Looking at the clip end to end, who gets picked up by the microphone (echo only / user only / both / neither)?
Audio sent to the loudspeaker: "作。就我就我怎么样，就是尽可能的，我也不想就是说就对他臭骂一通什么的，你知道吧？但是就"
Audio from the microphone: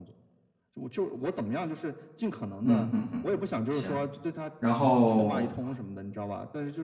both